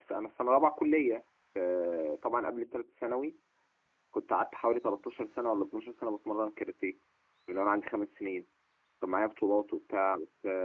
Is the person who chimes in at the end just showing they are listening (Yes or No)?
Yes